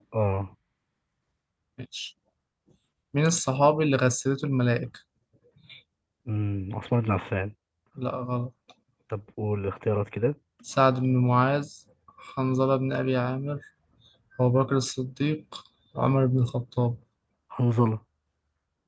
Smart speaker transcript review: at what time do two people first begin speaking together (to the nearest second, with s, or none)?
none